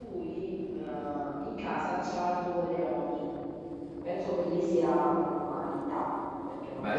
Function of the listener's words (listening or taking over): listening